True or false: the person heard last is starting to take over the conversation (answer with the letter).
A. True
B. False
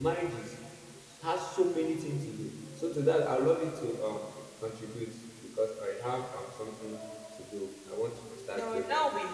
A